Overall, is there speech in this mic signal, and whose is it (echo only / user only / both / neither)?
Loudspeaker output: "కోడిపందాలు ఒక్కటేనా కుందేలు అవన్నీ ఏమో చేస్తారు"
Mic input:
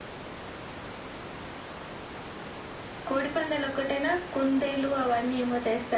echo only